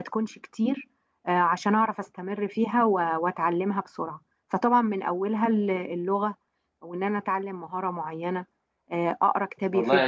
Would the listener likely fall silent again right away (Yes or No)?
No